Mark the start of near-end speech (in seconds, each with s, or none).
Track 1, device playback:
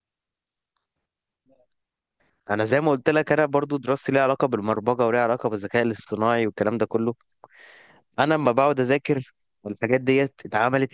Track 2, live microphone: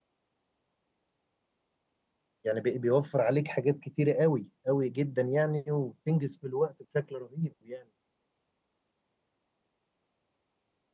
2.4 s